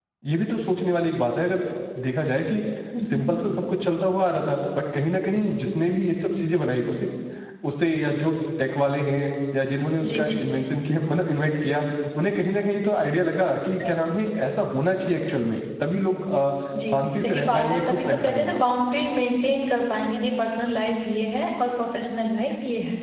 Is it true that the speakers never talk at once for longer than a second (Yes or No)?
No